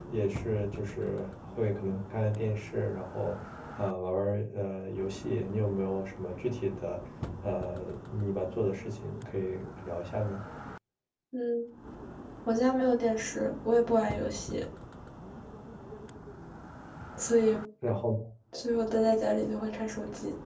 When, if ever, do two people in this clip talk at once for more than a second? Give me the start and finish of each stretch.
none

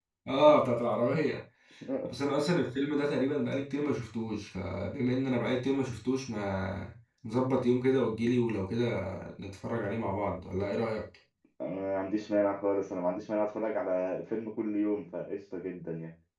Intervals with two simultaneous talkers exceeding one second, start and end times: none

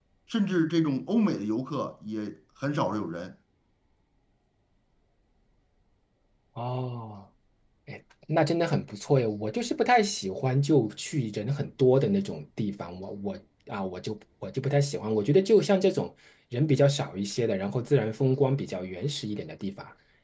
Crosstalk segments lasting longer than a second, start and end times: none

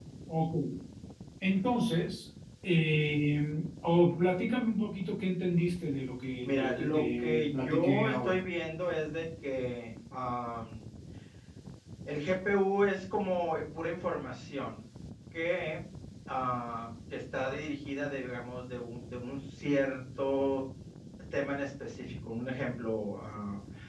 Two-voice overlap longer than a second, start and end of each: 6.4-8.4

